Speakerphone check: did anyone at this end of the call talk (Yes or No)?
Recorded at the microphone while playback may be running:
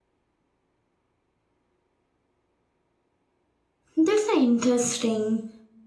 Yes